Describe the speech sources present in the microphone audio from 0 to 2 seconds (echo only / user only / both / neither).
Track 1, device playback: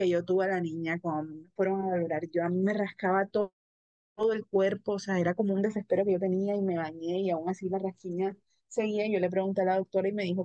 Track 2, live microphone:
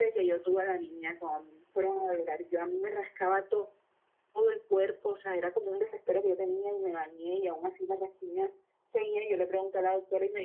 echo only